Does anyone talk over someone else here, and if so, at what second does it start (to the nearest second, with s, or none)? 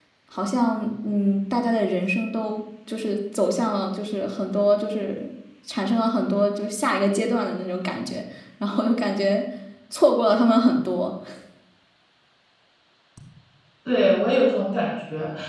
none